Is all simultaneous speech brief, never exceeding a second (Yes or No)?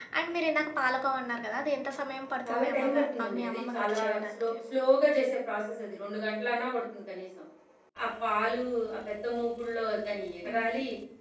No